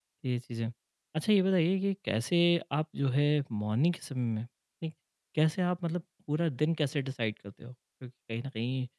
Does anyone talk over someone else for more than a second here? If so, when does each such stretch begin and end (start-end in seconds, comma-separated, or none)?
none